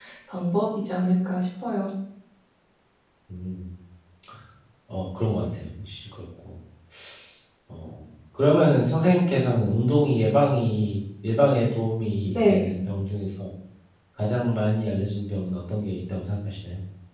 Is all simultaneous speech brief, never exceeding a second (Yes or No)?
Yes